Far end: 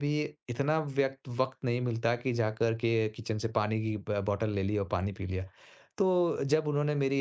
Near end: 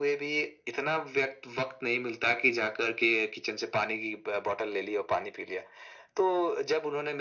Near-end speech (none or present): none